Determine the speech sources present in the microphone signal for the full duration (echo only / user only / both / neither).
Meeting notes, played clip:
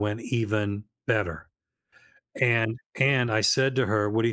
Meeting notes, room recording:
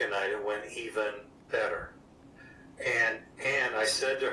echo only